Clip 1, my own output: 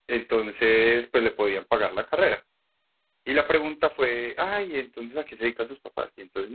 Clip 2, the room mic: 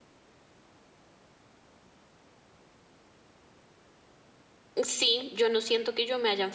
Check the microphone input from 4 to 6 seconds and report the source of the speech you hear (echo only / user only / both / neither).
user only